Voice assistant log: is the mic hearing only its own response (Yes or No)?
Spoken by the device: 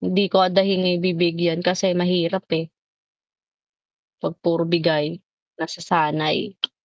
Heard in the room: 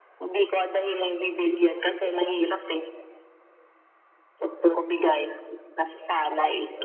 Yes